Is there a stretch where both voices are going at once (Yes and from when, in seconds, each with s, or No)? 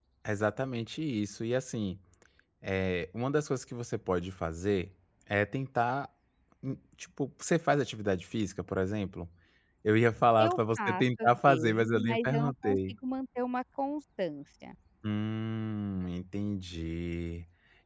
Yes, from 10.4 s